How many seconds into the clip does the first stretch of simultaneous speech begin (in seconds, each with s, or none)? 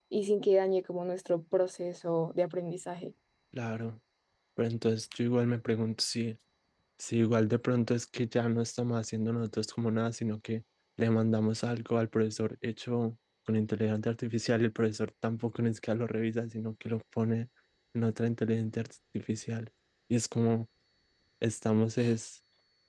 none